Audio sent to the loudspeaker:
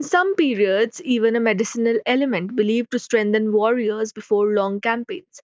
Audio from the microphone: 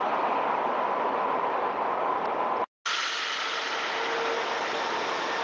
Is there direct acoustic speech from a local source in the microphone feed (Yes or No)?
No